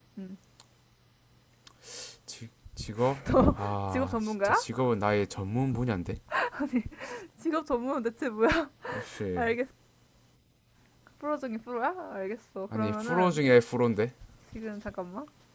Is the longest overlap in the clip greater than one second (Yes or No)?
Yes